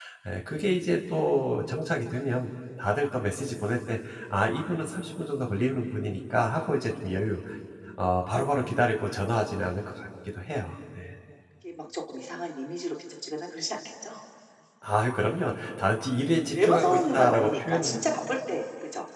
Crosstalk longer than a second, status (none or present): present